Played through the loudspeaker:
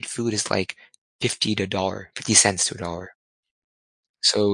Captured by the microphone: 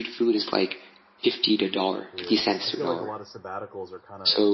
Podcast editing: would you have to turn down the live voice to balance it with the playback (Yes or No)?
No